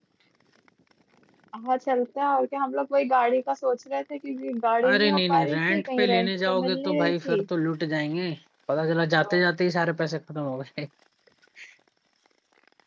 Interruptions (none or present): present